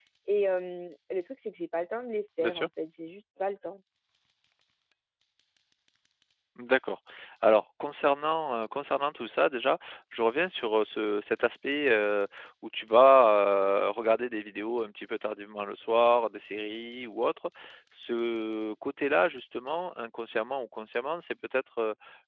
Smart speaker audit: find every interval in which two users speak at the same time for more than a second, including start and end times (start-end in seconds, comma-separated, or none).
none